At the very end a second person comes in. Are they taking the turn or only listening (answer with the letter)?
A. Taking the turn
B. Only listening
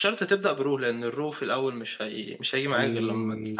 A